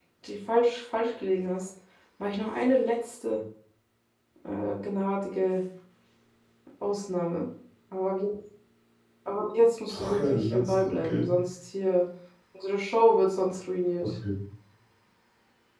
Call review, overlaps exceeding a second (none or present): present